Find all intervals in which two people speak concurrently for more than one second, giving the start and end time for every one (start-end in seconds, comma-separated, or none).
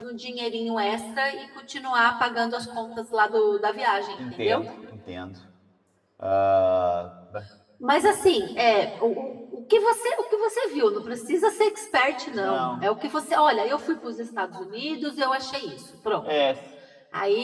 none